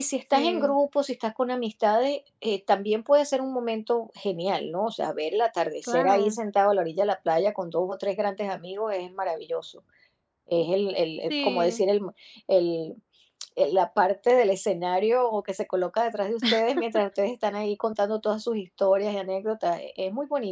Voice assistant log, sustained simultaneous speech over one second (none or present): none